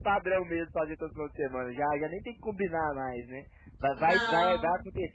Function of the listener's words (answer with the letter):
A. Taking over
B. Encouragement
B